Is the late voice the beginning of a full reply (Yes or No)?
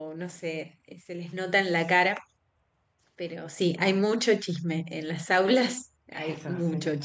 Yes